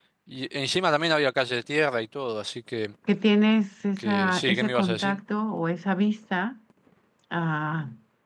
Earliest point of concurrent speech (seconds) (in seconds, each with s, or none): 4.0 s